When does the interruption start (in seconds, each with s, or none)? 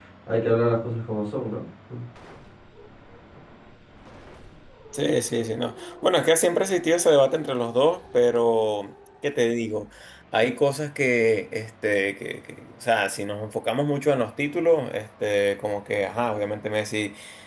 none